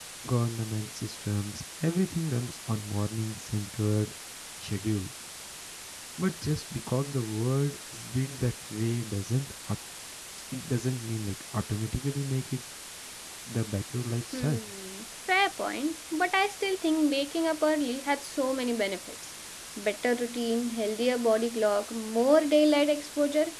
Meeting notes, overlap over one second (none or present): none